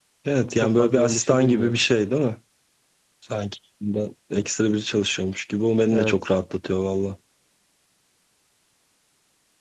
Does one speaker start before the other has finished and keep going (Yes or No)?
Yes